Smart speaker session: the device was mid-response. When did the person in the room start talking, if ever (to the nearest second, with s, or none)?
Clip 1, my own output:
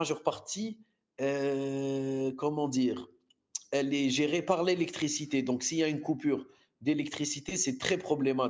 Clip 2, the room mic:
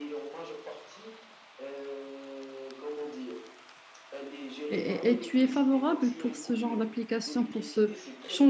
5 s